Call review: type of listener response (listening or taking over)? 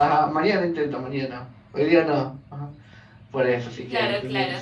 taking over